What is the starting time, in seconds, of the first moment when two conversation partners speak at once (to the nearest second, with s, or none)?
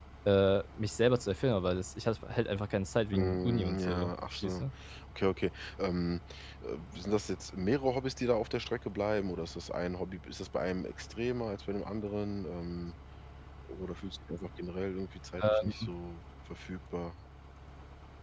3 s